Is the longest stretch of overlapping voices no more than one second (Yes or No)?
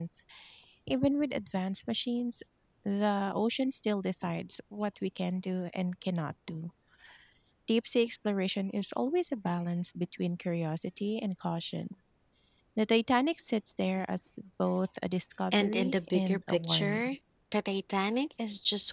No